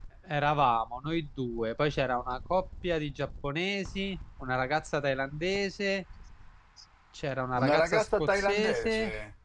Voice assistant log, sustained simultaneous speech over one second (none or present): present